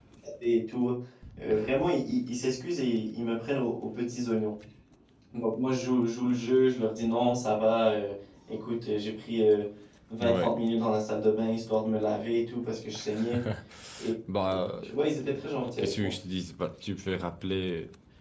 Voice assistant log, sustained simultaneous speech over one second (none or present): none